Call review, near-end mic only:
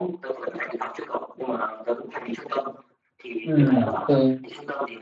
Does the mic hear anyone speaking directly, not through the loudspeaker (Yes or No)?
Yes